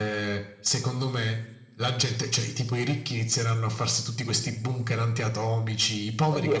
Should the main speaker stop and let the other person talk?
Yes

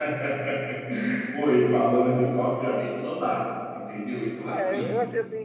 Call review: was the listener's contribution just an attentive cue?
No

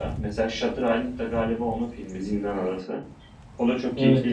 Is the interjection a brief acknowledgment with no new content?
No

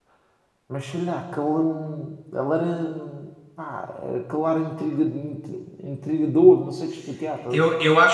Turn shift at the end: Yes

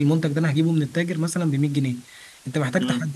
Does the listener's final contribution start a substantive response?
No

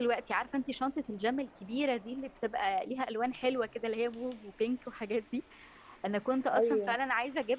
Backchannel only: Yes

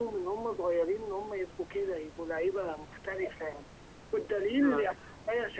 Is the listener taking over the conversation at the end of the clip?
No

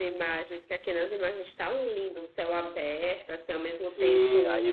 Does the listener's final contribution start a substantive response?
Yes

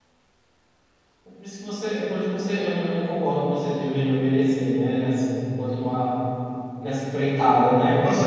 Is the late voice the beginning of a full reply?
Yes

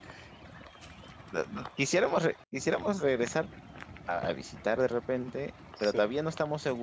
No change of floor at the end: Yes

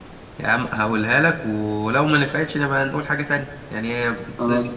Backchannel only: Yes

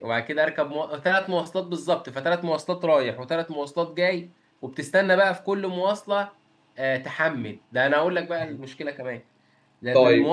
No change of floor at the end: Yes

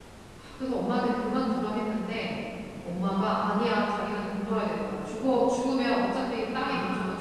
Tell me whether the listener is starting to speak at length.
No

